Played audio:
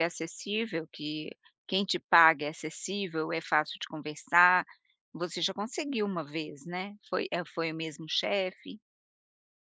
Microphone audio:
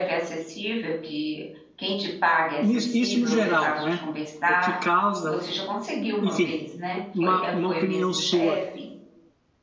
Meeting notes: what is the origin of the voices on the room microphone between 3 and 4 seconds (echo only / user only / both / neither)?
both